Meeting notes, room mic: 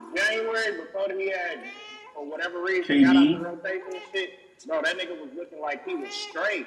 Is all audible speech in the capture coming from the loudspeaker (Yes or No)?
No